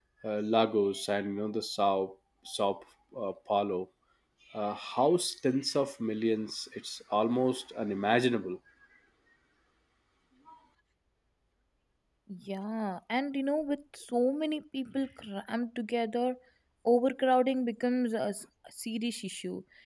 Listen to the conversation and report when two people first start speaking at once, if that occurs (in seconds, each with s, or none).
none